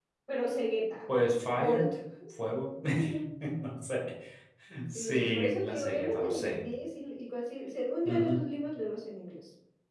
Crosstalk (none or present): present